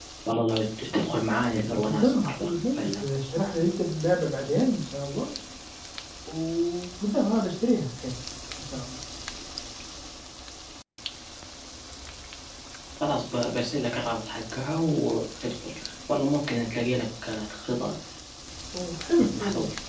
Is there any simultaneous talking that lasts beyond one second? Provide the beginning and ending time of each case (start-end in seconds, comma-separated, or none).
1.6-3.0